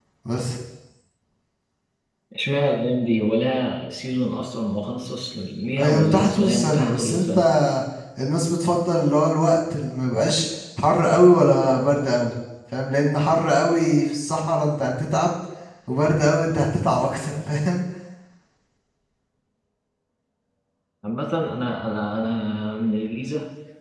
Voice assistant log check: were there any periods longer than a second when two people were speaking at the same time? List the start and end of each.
5.8-7.4

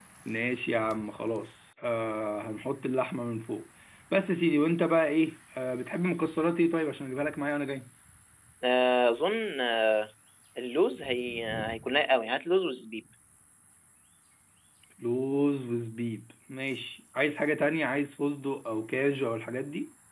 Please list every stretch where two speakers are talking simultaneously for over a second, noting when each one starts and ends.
none

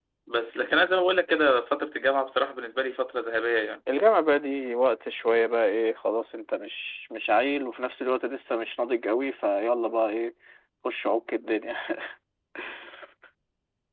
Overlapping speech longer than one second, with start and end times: none

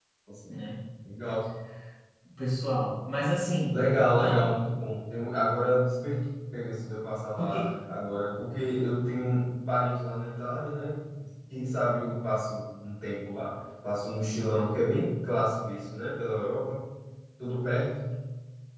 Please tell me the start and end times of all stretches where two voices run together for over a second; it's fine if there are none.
none

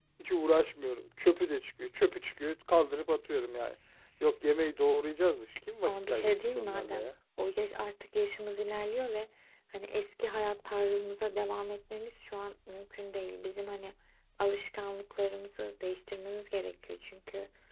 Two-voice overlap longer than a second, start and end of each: 5.8-7.1

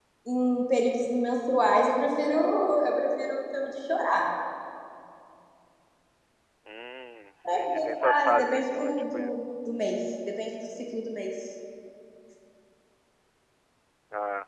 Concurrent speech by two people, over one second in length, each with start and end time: 7.5-9.3

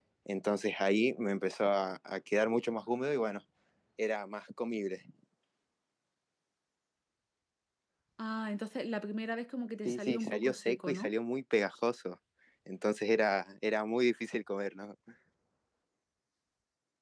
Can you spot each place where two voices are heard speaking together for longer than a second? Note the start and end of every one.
9.8-11.1

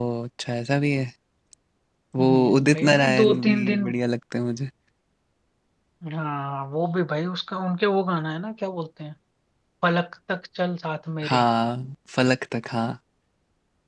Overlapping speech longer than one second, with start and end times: 2.2-3.8

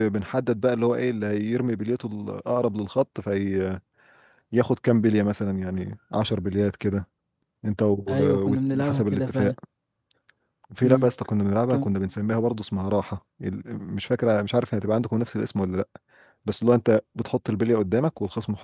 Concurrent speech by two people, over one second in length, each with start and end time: 8.1-9.5

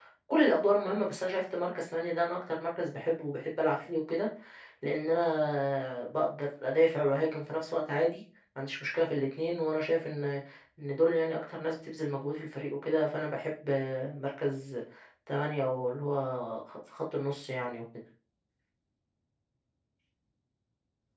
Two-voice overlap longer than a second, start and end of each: none

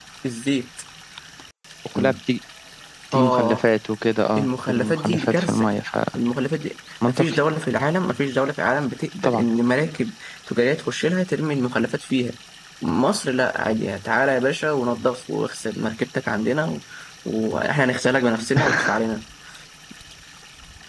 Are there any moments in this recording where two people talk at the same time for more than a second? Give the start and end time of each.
4.4-5.7

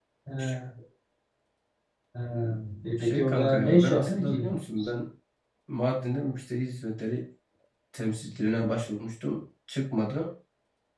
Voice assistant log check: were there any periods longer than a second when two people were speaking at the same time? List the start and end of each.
3.0-4.5

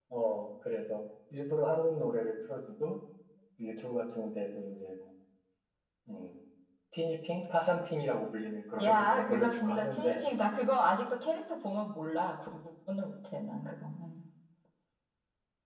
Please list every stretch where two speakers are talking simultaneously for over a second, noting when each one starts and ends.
8.8-10.2

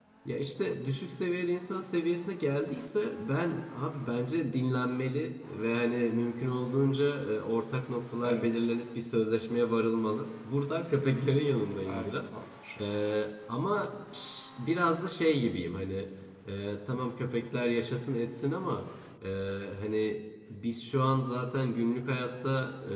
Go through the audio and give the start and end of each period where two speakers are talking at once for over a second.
none

